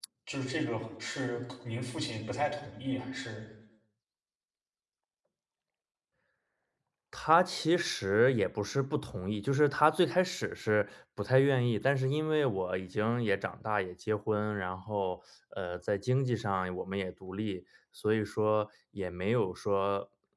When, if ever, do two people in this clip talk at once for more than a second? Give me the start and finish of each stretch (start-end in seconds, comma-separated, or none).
none